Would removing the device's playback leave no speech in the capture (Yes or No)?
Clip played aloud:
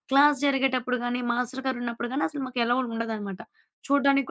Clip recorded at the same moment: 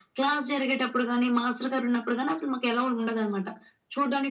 Yes